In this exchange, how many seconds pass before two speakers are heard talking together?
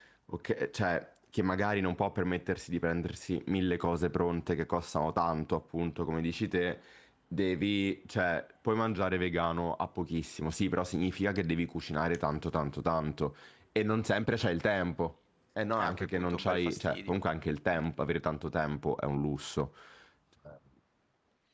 16 s

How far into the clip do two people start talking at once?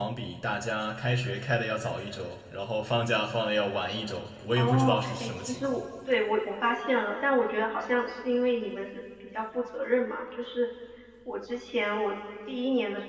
5 s

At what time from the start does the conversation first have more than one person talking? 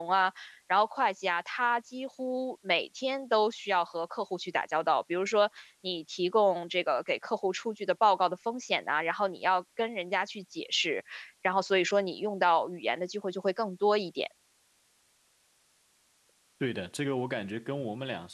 none

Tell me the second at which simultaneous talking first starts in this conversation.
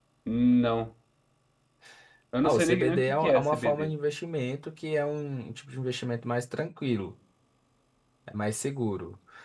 2 s

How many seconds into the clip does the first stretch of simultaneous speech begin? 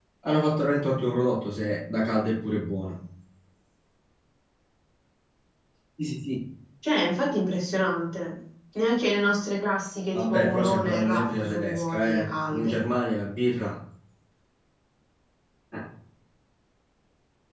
10 s

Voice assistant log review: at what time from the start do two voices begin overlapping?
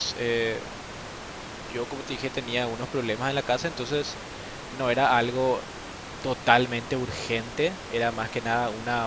none

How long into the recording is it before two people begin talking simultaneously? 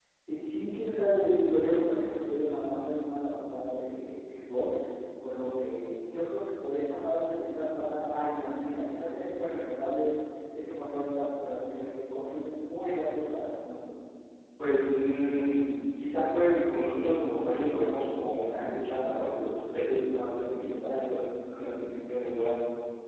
none

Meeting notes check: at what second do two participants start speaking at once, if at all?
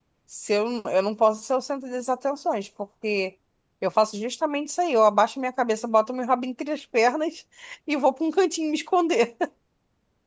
none

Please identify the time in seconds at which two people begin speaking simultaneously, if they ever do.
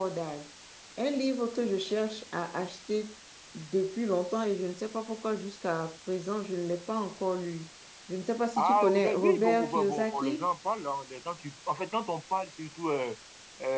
9 s

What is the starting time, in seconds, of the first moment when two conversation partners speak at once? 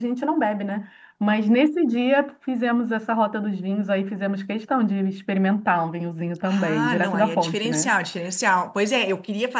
6 s

